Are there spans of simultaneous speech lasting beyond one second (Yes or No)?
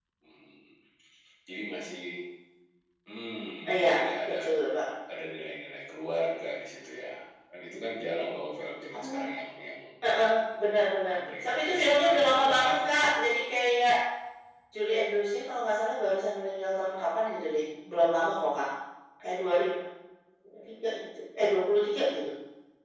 Yes